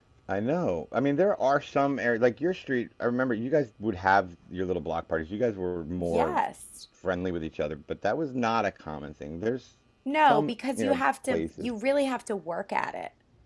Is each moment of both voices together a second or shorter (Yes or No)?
No